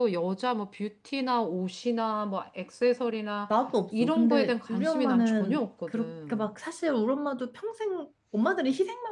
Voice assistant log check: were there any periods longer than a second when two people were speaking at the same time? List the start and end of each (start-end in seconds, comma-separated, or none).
4.0-6.4